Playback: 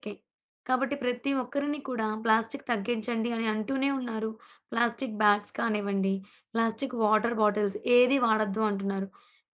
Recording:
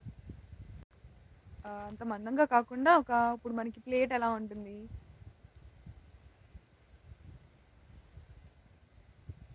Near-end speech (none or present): present